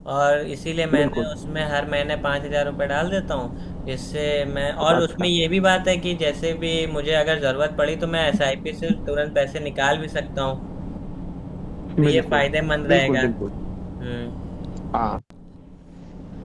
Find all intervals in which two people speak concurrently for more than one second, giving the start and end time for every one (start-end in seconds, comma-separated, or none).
none